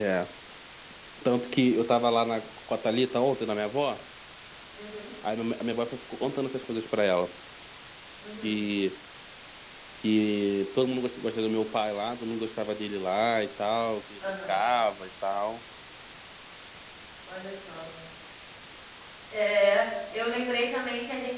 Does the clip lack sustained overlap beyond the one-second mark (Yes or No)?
Yes